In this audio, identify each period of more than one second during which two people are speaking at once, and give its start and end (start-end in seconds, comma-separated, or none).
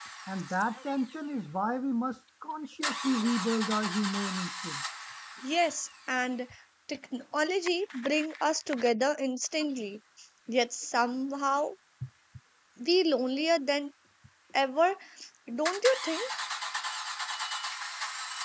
none